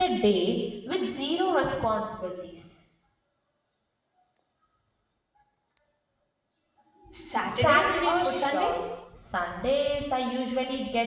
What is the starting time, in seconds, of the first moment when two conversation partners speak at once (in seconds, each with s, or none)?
7.5 s